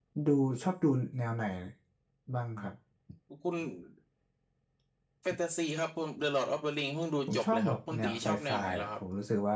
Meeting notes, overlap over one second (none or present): present